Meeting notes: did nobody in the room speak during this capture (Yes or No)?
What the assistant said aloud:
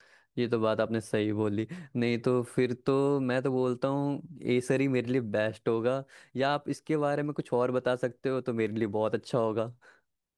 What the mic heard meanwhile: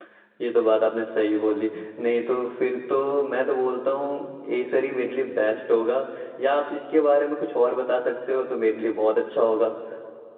Yes